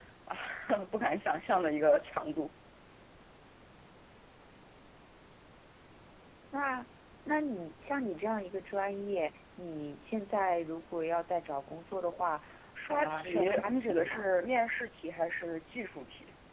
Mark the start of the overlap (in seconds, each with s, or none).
12.9 s